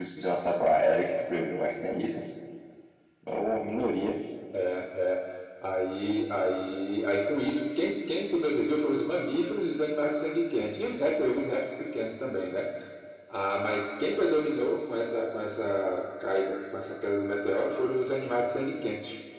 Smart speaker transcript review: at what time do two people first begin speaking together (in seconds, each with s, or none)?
none